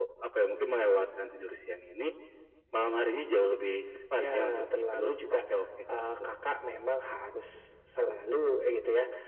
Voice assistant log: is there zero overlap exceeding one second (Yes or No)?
No